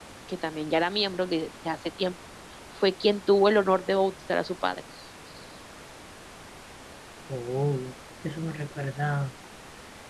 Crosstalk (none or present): none